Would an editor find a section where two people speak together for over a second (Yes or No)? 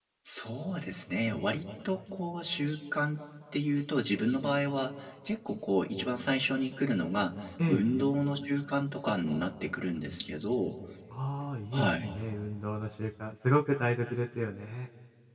No